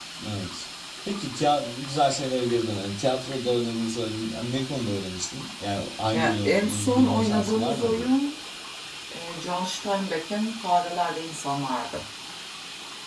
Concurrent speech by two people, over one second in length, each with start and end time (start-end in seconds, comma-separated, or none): 6.1-8.1